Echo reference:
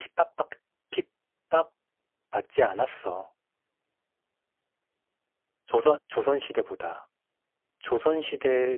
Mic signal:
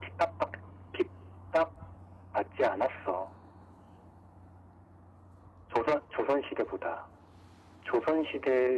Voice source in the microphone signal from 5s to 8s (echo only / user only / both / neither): echo only